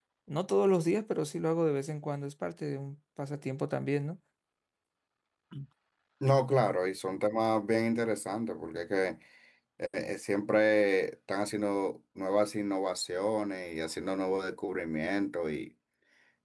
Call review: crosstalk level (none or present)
none